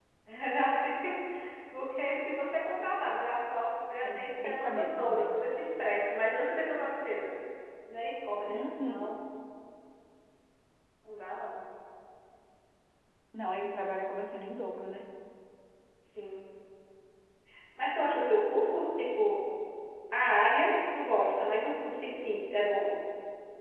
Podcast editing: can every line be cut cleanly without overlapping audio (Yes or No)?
No